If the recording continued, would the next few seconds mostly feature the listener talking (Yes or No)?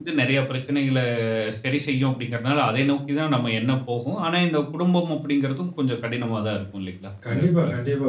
Yes